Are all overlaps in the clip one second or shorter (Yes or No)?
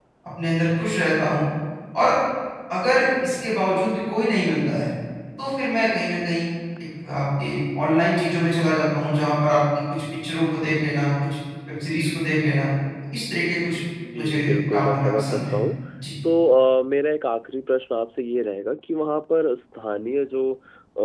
No